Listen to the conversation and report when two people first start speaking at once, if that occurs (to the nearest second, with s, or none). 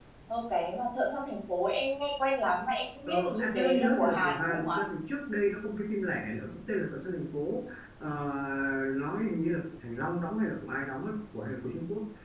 3 s